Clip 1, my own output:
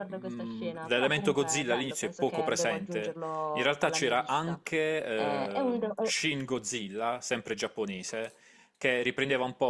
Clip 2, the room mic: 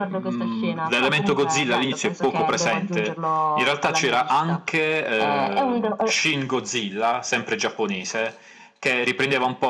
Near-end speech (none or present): none